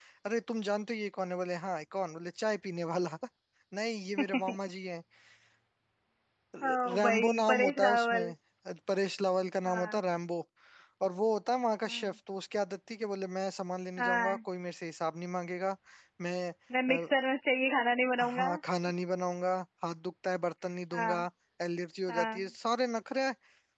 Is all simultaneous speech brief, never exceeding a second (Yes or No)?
No